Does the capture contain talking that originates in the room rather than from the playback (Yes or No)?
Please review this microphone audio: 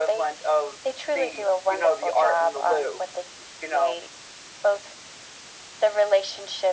No